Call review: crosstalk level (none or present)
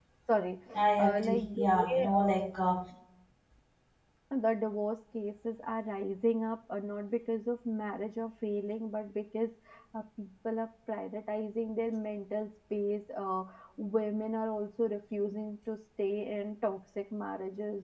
present